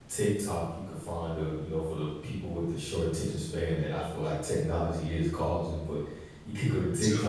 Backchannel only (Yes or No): Yes